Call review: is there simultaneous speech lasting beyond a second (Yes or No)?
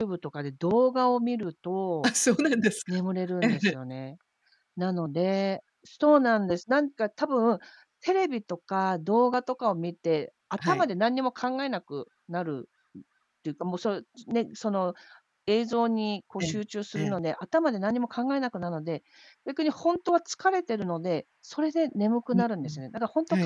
No